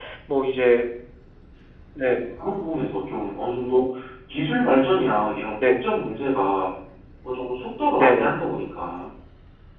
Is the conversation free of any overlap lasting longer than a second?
Yes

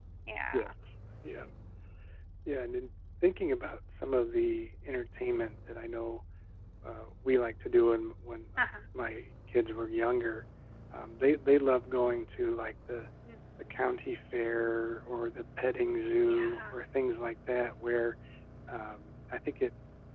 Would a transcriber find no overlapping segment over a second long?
Yes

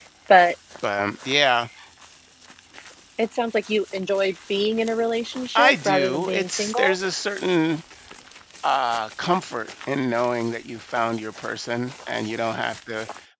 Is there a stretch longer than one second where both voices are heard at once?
Yes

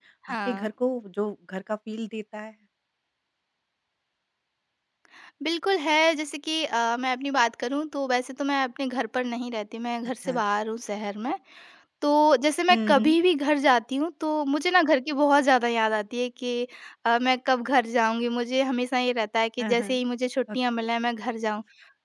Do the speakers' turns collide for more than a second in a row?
No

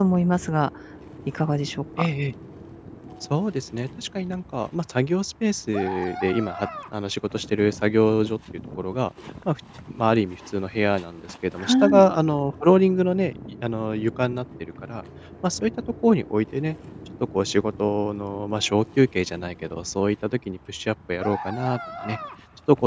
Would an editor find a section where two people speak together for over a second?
No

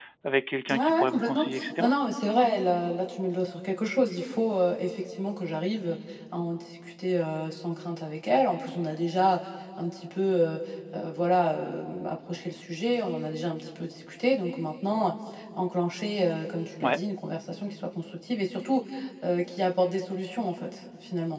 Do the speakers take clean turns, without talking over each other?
No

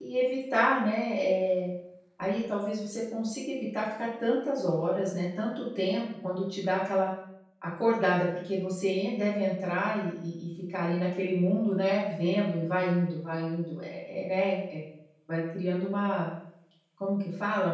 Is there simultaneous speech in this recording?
No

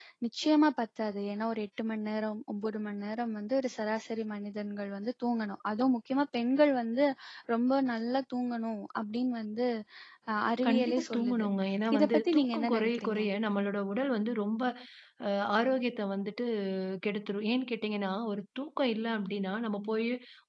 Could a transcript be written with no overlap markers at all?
No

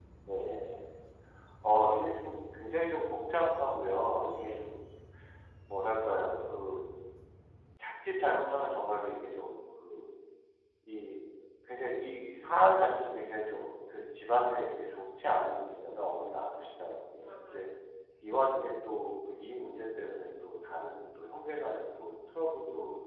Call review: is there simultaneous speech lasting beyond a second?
No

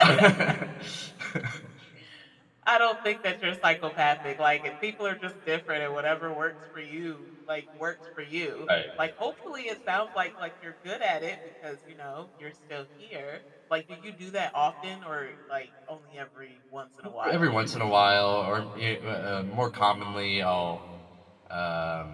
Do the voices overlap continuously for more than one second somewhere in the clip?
No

